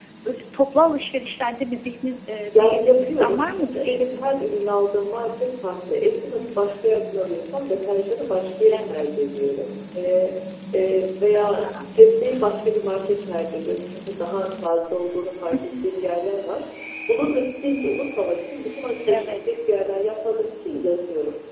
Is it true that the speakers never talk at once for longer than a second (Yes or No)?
No